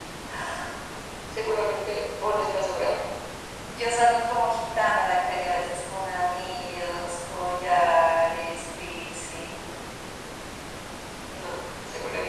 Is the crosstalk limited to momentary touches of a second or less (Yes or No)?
Yes